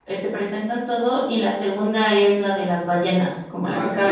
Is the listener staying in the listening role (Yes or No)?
No